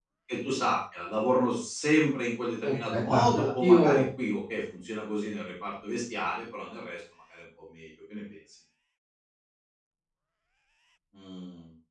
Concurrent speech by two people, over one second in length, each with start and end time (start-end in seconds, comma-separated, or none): 2.6-4.0